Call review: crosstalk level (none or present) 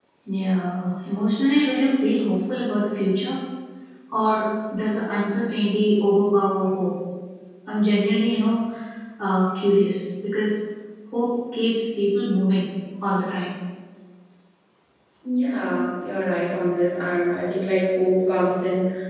none